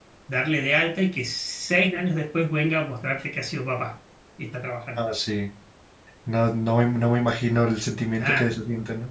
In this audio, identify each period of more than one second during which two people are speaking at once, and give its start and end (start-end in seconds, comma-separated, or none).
none